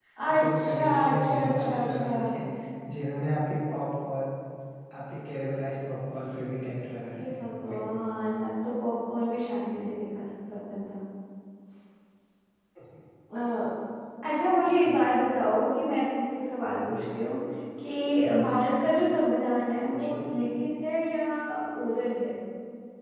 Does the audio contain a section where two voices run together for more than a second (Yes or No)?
Yes